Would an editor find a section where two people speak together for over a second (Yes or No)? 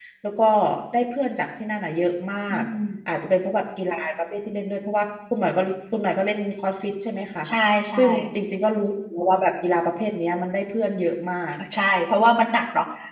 No